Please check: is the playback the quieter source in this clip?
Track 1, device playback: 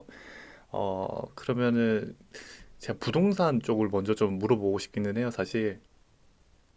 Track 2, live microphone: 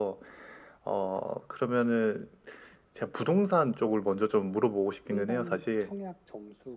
No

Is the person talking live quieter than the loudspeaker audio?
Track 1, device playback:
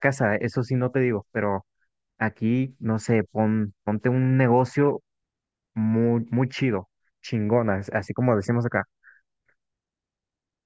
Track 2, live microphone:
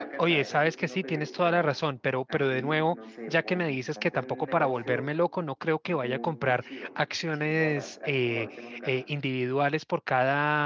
No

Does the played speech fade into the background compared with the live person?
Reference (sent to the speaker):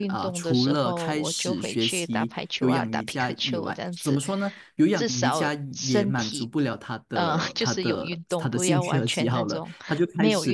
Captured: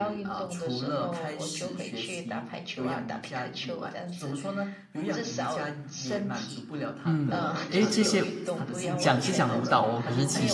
Yes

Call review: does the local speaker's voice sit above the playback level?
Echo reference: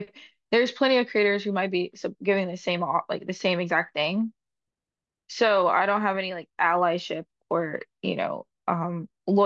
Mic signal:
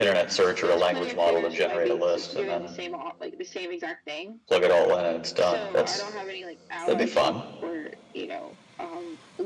Yes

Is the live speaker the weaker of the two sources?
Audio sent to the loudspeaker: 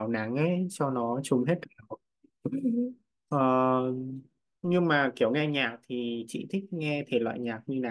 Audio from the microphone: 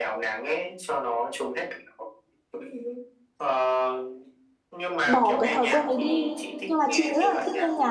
No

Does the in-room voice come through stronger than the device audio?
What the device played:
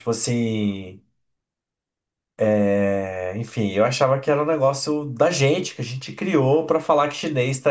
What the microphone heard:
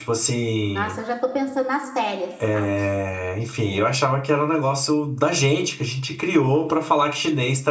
No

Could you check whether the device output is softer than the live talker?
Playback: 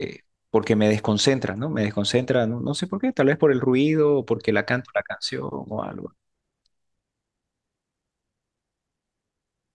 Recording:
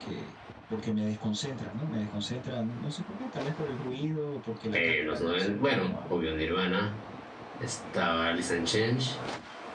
Yes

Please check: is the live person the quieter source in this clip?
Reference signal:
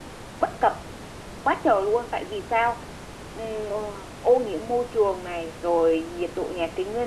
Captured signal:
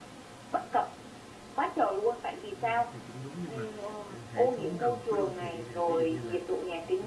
Yes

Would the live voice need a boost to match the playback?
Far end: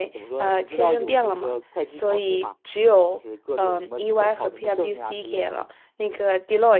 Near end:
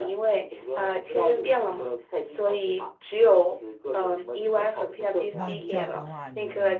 Yes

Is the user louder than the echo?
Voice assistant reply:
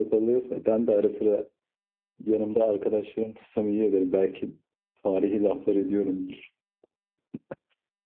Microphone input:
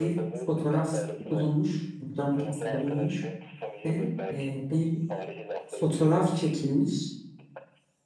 Yes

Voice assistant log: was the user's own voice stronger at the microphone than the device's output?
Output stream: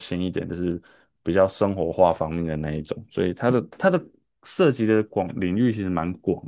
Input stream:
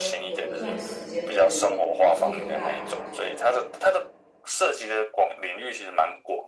No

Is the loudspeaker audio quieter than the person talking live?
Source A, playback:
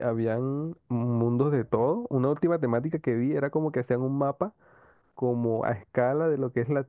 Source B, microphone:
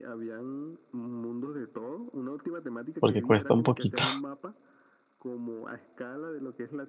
Yes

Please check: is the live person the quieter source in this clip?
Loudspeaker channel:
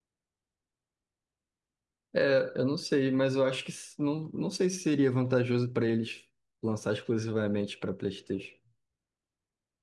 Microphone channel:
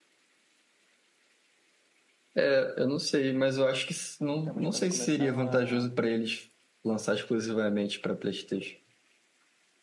Yes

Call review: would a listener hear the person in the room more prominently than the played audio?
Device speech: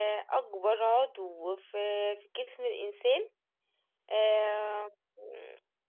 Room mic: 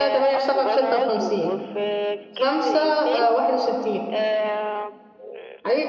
Yes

